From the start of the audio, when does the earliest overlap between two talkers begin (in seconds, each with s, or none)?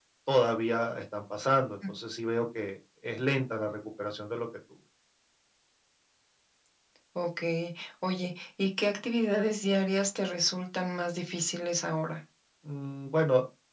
none